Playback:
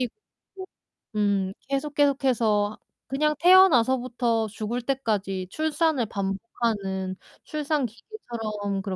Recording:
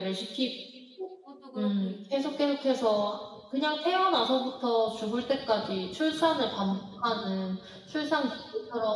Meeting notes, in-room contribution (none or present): present